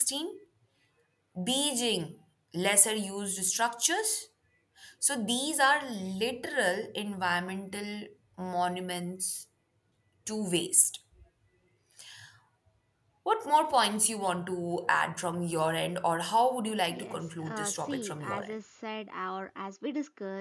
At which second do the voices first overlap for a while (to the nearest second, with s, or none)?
17 s